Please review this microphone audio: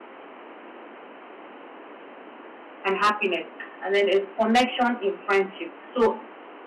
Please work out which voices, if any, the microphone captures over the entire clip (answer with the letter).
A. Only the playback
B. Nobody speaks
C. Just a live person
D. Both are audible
C